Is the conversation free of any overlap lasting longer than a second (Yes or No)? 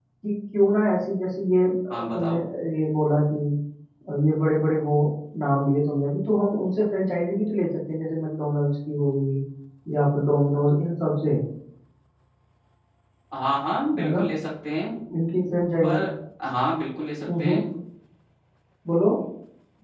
Yes